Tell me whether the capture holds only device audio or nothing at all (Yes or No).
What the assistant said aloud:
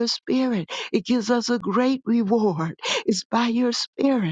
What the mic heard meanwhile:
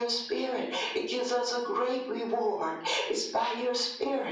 Yes